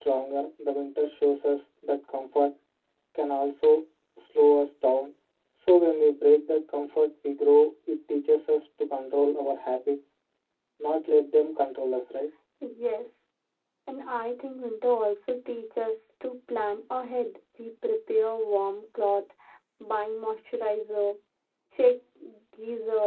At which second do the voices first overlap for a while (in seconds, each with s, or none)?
none